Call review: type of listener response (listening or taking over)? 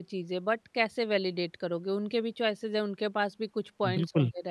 taking over